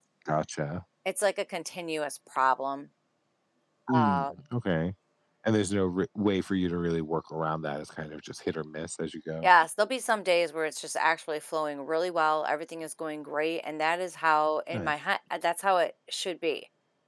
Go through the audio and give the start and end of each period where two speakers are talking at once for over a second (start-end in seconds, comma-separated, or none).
none